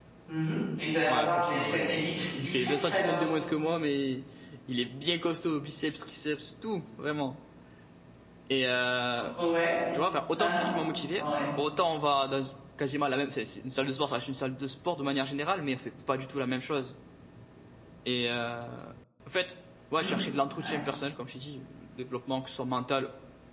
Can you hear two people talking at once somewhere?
Yes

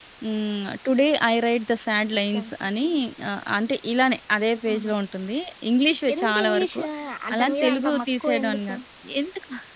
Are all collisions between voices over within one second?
No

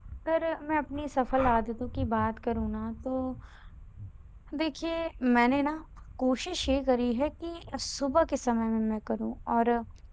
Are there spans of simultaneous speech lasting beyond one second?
No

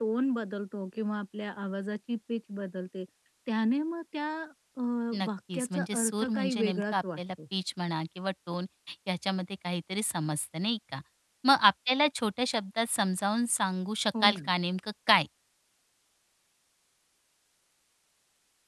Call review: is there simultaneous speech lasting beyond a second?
Yes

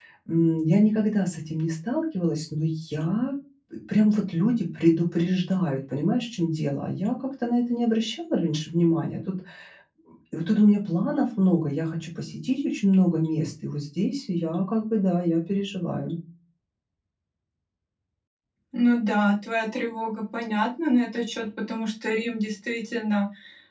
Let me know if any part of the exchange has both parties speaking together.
No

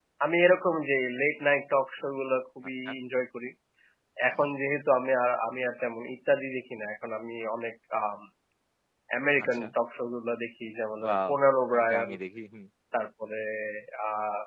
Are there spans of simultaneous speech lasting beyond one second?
No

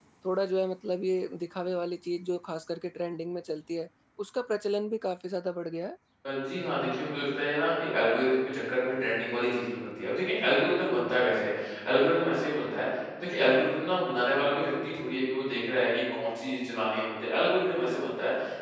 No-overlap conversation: Yes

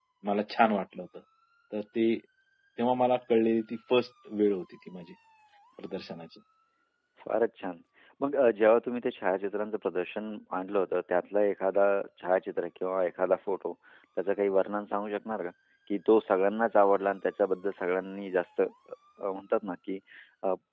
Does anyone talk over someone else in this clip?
No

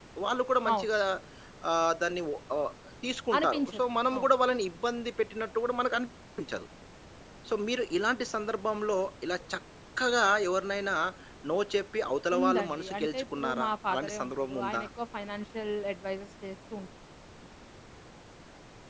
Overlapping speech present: Yes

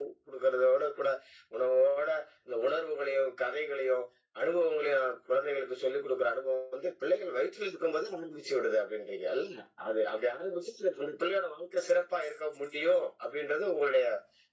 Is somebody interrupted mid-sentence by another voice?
No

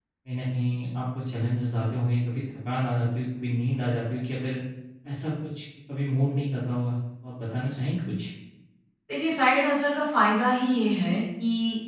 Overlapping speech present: No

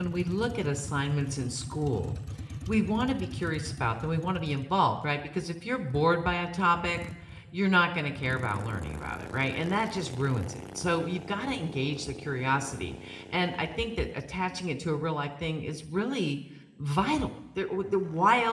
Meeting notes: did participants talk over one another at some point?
No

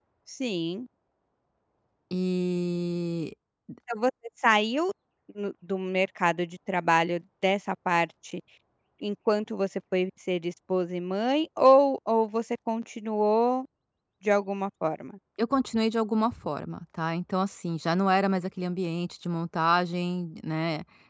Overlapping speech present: No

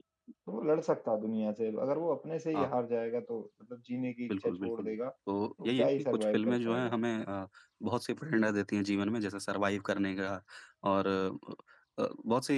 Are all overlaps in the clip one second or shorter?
No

